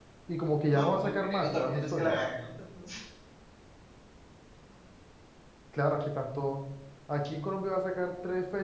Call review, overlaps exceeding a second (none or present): present